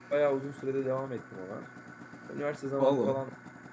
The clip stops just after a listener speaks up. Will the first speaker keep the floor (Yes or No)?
Yes